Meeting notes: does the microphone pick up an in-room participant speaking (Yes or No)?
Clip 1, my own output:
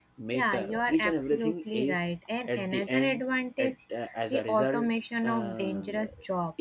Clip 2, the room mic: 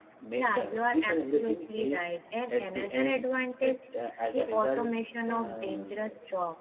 No